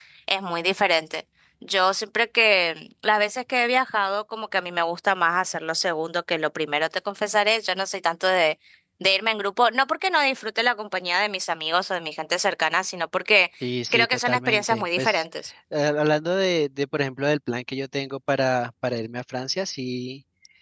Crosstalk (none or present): present